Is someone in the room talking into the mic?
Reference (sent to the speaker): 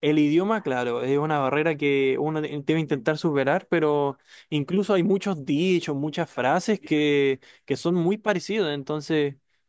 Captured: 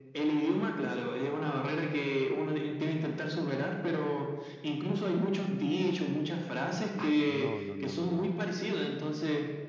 Yes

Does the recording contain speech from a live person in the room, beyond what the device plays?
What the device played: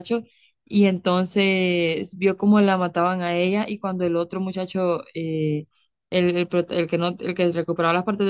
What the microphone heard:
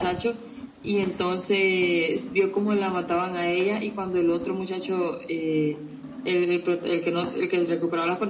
No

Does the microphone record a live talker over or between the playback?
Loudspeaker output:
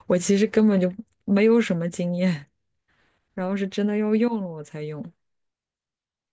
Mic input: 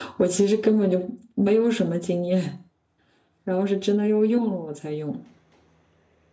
No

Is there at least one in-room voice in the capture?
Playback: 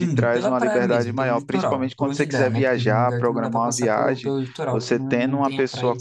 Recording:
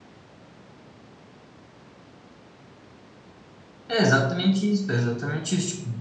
Yes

